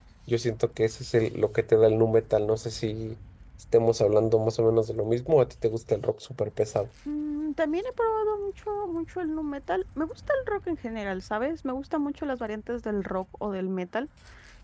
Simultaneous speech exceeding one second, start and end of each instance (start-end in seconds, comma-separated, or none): none